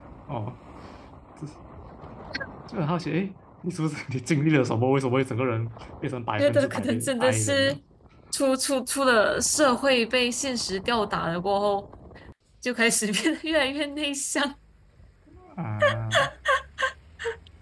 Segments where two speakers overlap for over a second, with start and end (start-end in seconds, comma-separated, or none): 6.4-7.8